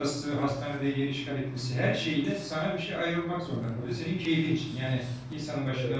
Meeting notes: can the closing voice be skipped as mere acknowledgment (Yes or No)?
Yes